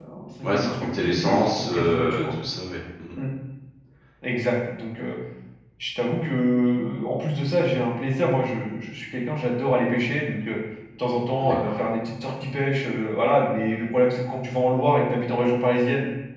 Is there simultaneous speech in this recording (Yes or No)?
Yes